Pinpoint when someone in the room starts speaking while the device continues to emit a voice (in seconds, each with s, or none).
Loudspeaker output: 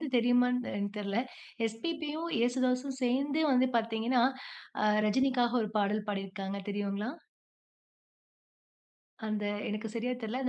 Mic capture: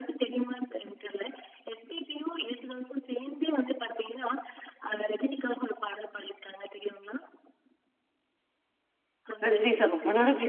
9.4 s